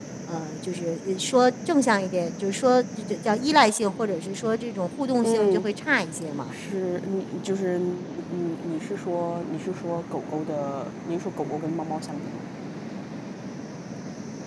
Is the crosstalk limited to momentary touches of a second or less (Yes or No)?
Yes